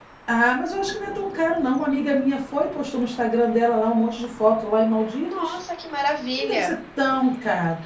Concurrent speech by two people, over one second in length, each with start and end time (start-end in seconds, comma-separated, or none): none